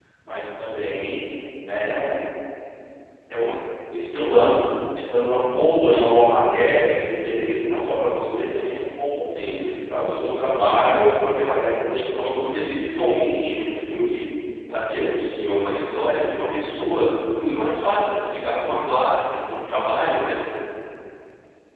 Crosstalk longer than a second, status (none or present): none